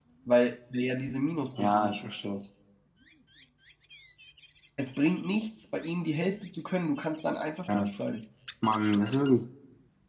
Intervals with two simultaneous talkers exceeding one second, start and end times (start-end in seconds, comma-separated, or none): none